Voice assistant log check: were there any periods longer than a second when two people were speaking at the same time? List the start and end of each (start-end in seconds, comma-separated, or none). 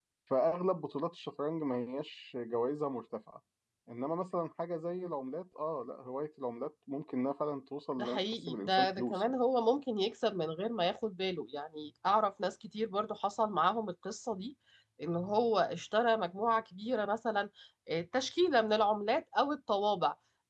8.0-9.4